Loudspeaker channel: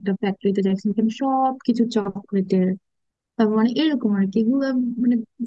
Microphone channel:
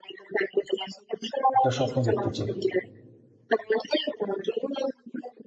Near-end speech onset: 2 s

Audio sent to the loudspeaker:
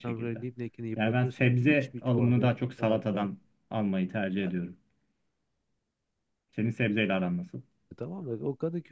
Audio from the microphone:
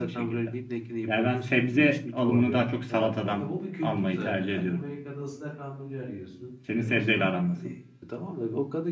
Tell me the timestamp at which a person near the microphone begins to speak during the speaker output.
3 s

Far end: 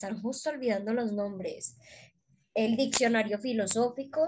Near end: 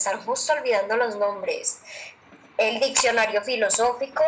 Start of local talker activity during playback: none

